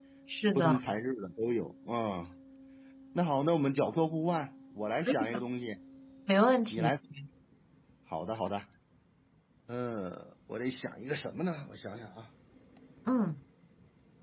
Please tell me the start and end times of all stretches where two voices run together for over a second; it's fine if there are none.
none

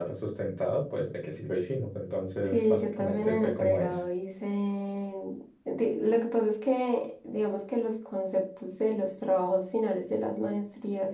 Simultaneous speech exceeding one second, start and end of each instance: 2.4-3.9

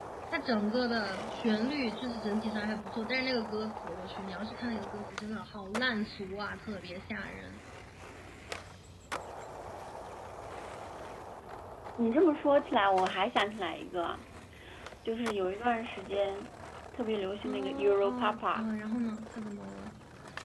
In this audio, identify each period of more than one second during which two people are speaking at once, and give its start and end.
17.4-18.6

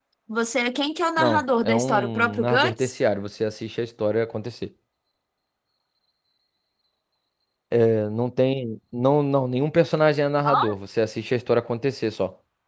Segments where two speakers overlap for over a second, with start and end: 1.2-2.9

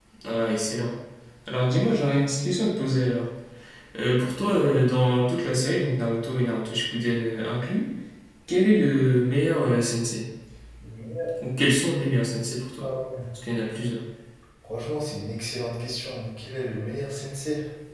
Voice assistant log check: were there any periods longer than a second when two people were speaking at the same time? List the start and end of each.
none

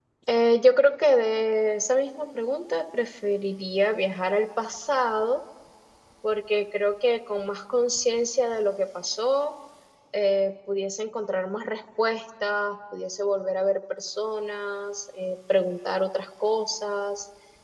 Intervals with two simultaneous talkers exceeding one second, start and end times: none

